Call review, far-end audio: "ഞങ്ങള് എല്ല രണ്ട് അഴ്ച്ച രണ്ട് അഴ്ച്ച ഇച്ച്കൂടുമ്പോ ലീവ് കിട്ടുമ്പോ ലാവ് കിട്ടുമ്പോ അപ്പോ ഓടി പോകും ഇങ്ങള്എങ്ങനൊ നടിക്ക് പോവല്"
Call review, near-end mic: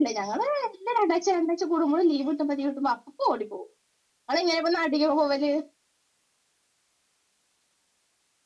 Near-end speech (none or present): none